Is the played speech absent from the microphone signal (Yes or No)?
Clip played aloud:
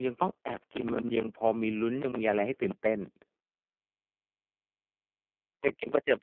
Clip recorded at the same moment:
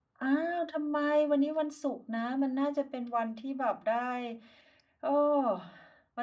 Yes